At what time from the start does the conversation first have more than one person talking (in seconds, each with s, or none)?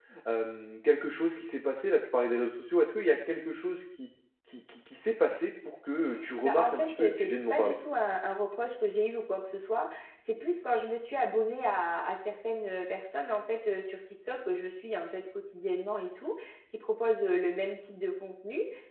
6.4 s